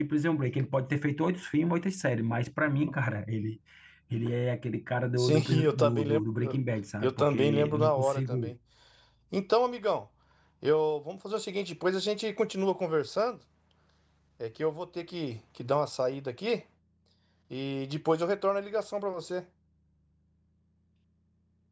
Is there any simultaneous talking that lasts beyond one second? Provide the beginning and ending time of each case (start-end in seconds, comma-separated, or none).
5.2-6.6, 7.0-8.5